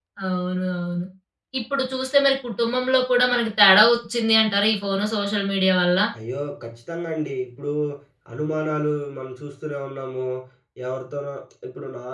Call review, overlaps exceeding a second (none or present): none